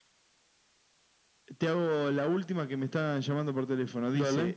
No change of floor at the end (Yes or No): Yes